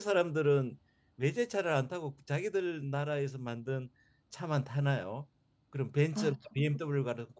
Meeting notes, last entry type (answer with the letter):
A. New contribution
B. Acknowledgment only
B